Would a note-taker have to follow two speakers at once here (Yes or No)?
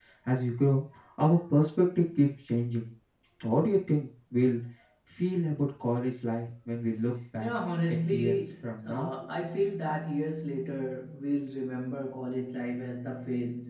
Yes